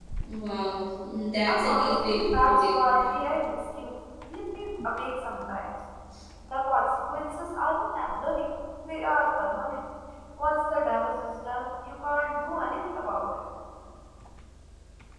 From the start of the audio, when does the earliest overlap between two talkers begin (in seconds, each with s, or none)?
1.5 s